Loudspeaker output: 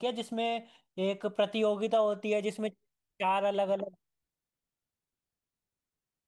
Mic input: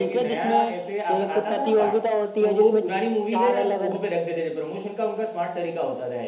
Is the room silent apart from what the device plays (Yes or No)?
No